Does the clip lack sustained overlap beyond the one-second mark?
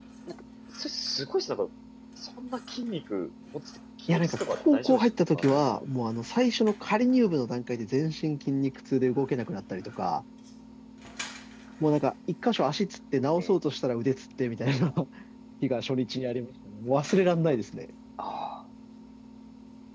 No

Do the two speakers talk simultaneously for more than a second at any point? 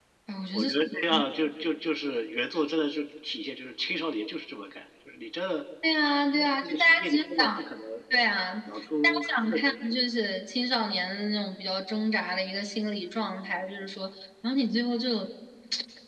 Yes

